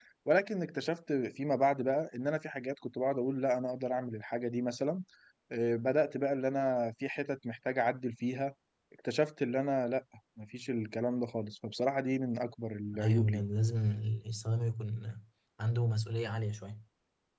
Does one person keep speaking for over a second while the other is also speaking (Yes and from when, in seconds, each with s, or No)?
No